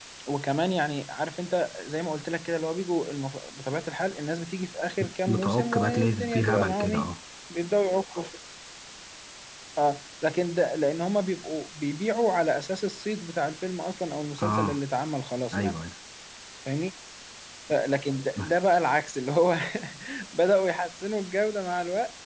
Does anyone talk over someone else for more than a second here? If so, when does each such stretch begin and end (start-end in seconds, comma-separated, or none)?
5.0-7.1